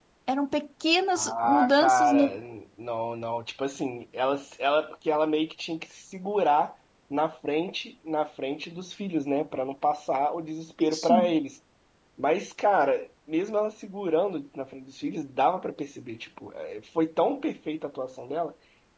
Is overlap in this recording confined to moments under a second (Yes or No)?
No